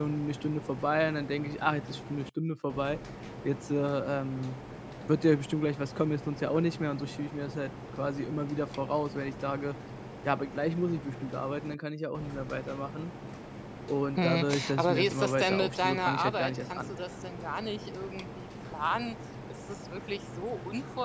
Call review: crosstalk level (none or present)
present